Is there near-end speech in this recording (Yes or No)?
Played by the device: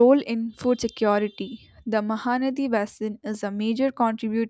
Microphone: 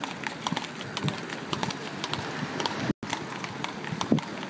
No